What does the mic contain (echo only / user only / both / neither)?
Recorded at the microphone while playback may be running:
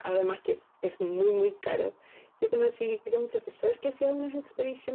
echo only